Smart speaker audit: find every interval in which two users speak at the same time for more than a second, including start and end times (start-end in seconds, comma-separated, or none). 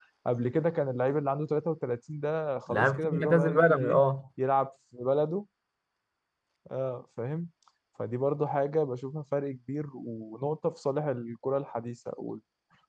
2.7-4.0